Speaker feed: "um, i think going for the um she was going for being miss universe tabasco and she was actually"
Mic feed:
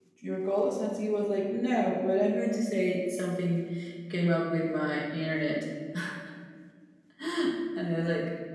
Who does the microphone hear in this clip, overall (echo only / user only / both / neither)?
user only